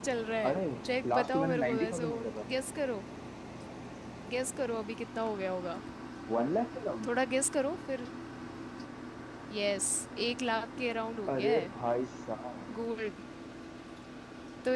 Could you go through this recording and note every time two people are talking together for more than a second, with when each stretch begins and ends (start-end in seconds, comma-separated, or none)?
1.1-2.4